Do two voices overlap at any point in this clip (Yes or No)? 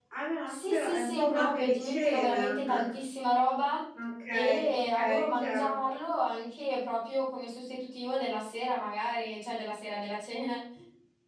Yes